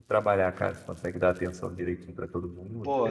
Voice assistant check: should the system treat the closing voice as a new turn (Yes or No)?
Yes